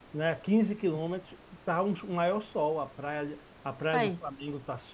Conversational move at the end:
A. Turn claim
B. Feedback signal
B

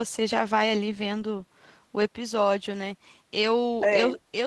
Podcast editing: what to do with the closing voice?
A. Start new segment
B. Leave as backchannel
B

